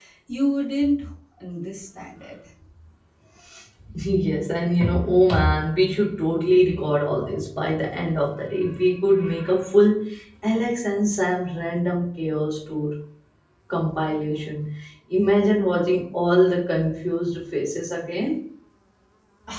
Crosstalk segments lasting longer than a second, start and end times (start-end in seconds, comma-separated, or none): none